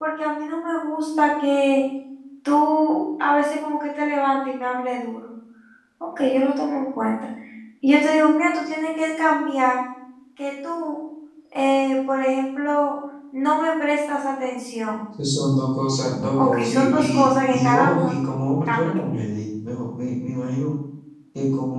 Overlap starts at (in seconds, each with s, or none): 16.4 s